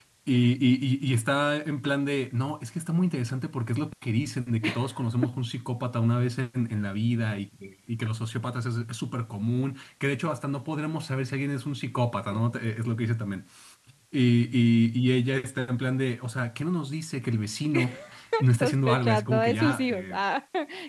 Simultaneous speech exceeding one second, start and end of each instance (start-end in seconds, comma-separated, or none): 18.6-20.2